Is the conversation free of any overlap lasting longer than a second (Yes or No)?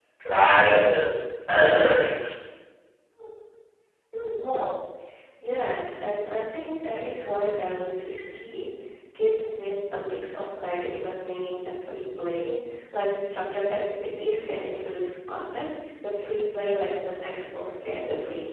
Yes